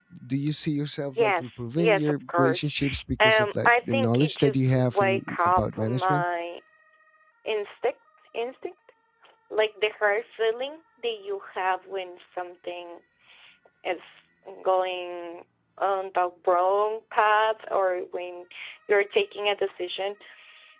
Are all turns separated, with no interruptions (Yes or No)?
No